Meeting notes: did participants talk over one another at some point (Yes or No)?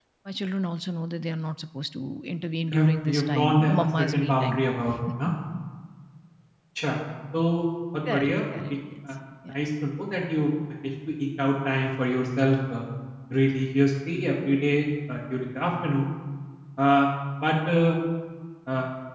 Yes